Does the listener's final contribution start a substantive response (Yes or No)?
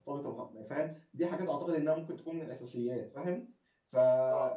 No